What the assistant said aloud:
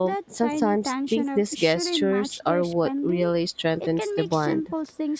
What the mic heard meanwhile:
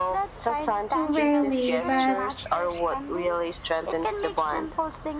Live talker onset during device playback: 1.0 s

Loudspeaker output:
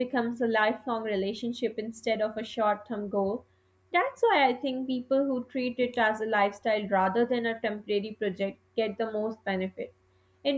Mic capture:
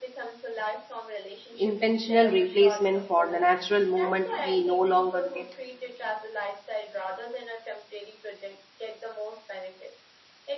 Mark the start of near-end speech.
1.6 s

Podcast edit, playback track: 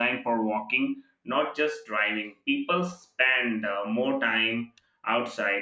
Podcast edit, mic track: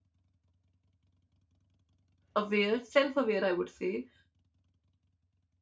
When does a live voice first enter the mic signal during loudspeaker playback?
2.4 s

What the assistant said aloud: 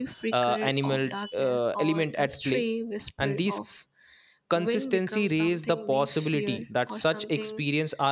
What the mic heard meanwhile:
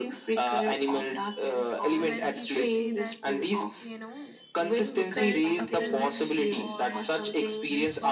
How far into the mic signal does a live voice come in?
1.9 s

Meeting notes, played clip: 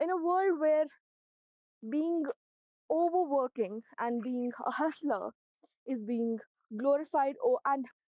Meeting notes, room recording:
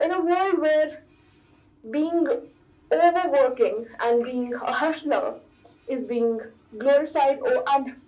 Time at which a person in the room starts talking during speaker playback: none

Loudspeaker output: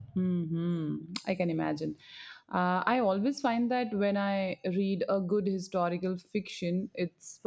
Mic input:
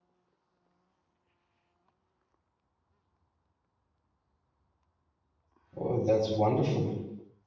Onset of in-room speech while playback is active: 5.8 s

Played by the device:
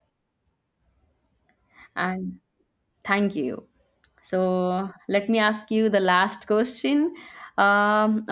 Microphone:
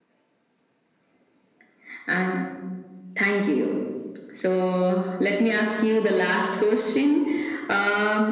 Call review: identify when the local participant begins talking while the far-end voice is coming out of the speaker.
none

